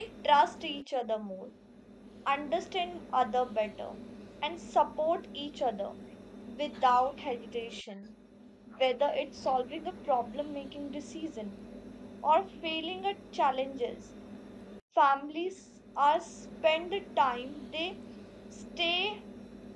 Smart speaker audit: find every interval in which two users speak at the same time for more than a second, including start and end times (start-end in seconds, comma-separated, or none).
none